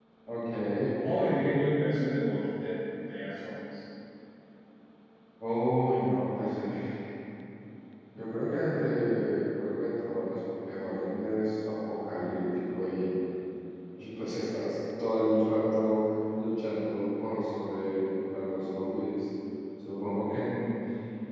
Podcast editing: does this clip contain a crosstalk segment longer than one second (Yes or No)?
No